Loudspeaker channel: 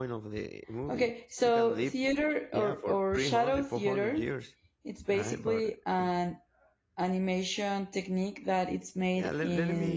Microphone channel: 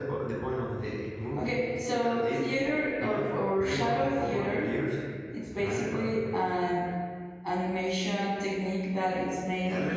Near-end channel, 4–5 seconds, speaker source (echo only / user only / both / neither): echo only